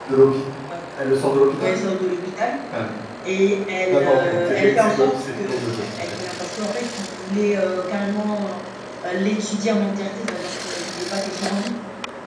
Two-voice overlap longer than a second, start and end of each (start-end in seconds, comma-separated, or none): 3.8-6.1